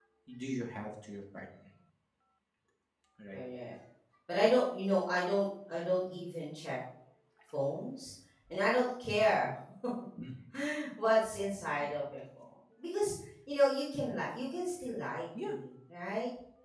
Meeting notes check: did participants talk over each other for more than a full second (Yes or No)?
No